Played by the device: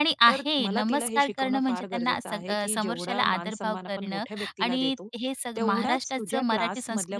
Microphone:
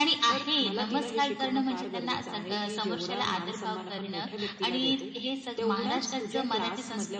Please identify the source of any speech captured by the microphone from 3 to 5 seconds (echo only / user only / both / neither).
echo only